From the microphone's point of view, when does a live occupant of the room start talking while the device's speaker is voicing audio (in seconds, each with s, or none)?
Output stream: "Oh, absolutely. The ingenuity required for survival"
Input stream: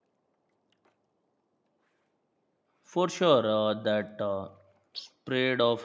2.8 s